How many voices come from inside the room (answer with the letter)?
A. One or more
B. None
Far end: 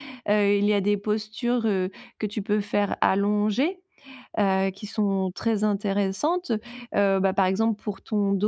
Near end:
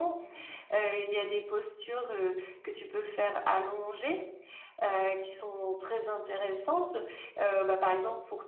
B